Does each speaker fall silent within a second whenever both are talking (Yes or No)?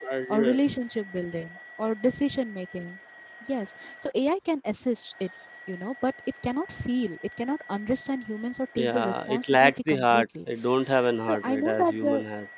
No